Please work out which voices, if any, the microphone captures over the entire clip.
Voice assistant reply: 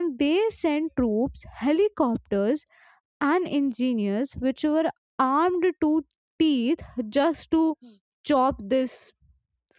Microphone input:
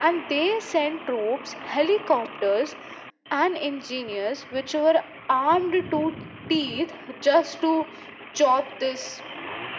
echo only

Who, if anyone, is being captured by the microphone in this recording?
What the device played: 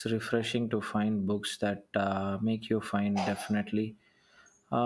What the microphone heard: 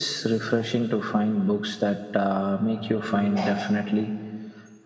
echo only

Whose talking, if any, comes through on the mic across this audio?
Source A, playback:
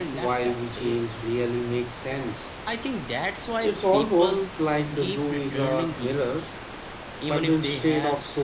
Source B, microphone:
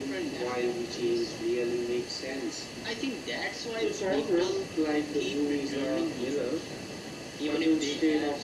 echo only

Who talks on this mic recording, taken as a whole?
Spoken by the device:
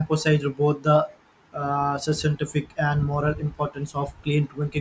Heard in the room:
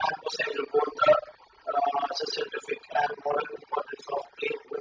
echo only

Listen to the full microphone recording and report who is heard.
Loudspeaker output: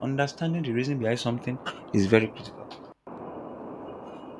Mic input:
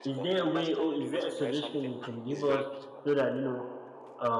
both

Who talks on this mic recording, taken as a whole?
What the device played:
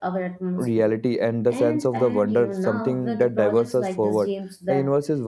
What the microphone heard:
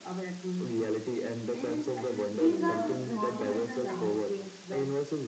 both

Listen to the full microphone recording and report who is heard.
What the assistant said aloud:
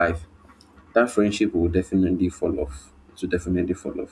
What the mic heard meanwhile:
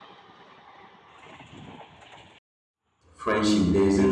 user only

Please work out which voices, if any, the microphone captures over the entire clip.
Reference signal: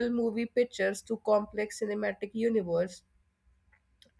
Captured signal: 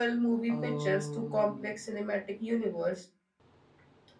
both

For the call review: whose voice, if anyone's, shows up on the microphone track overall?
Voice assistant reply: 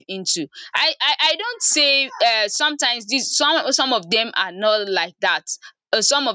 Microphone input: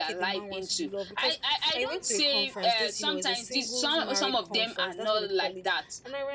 both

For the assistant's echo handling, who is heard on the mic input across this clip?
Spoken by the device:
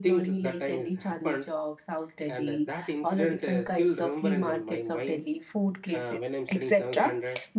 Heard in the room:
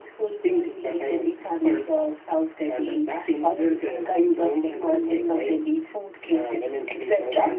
echo only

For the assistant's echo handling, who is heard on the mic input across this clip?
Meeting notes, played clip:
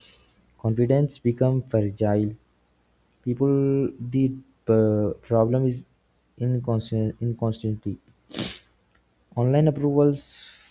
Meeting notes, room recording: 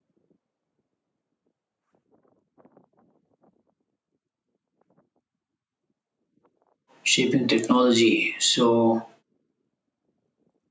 user only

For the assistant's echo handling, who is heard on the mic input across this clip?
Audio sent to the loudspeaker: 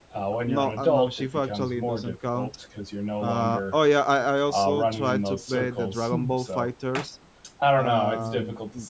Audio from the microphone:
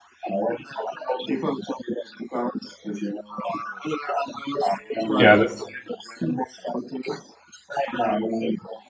both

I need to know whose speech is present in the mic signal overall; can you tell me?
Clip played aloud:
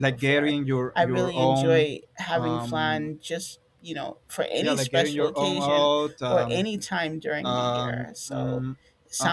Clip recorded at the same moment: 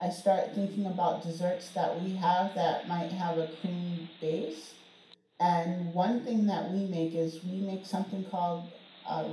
user only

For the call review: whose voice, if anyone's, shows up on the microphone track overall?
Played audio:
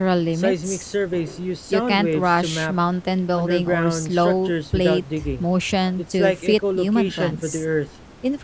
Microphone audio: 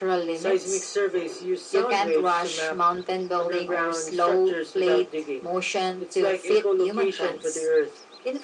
echo only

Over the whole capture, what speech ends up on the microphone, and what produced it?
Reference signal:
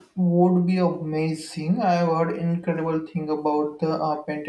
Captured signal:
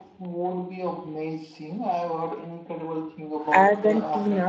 both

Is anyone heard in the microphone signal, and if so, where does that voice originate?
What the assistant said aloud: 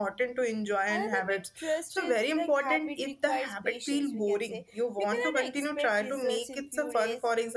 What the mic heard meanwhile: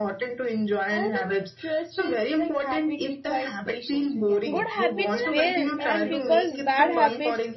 both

